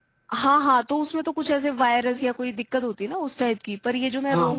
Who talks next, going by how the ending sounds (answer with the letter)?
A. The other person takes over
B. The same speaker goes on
B